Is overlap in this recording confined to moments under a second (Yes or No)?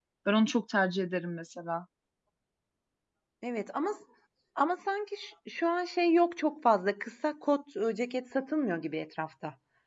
Yes